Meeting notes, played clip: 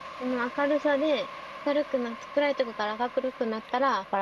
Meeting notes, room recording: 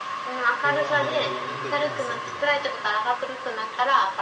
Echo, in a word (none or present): present